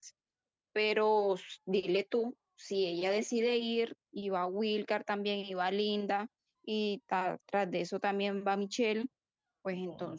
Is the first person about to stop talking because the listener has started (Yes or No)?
No